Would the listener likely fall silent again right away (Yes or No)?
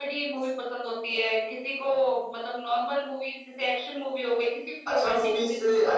No